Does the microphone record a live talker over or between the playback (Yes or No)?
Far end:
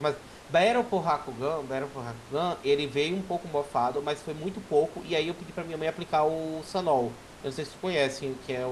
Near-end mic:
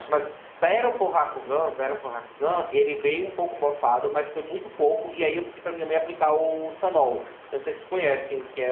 No